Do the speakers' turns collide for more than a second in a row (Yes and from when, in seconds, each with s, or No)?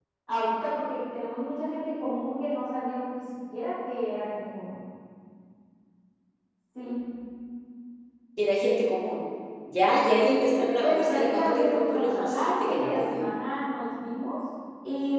Yes, from 10.8 s